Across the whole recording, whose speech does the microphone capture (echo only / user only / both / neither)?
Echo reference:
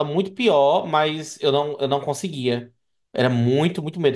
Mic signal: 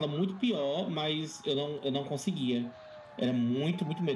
echo only